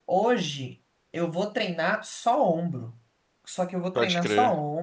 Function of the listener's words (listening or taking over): listening